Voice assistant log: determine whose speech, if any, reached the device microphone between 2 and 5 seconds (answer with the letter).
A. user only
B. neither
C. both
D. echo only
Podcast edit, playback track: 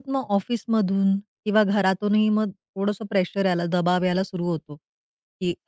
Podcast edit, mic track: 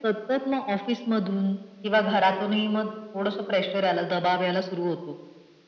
D